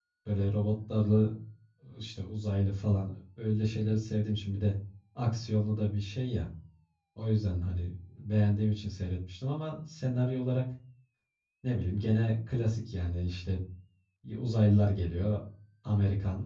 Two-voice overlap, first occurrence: none

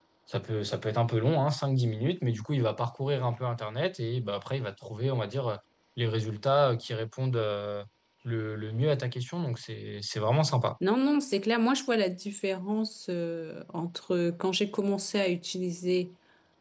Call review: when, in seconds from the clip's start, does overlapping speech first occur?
none

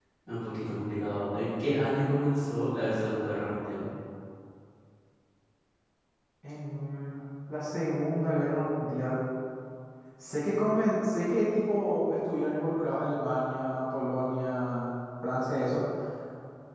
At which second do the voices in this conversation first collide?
none

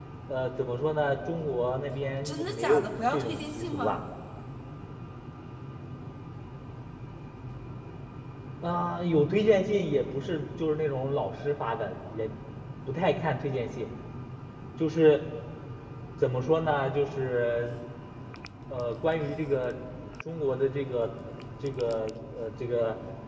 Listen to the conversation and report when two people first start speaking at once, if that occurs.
2 s

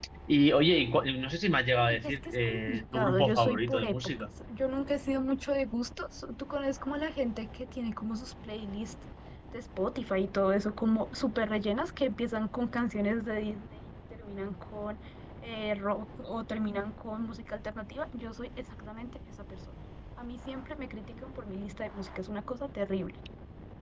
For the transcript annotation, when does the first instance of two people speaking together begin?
2 s

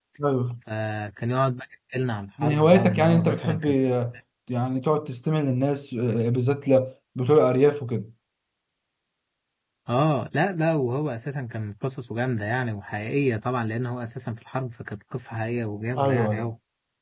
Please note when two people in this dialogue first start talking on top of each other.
2 s

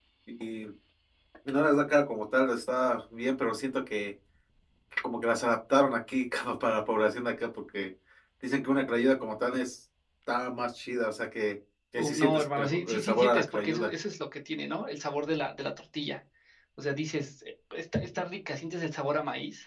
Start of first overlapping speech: 12 s

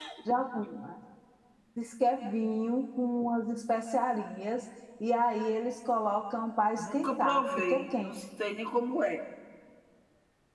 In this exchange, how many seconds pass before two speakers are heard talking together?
7 s

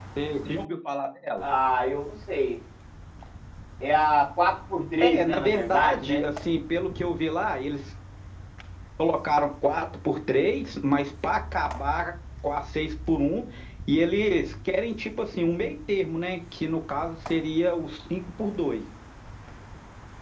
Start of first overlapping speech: 5 s

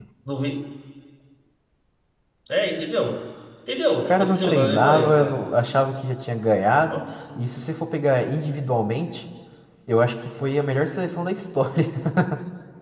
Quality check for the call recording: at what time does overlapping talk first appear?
4 s

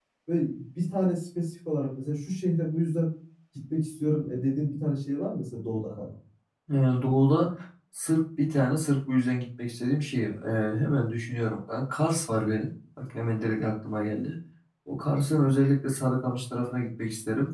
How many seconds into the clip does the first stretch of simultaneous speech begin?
none

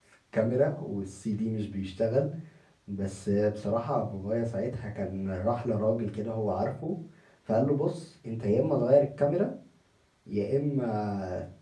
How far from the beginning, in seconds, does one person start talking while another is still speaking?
none

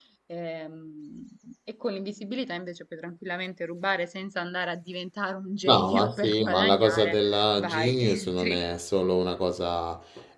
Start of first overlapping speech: 6 s

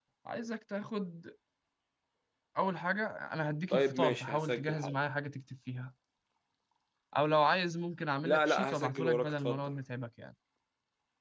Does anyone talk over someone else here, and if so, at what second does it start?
4 s

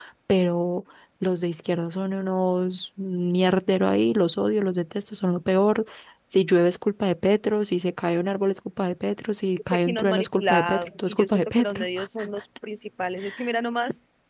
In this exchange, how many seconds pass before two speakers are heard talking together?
10 s

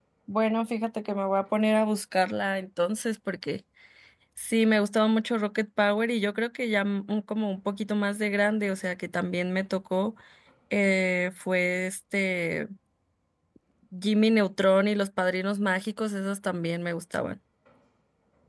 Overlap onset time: none

